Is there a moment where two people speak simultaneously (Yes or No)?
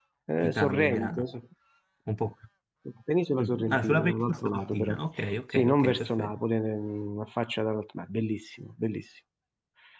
Yes